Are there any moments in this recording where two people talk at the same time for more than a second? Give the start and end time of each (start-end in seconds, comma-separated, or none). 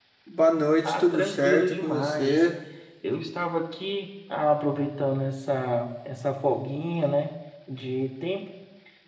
0.8-2.4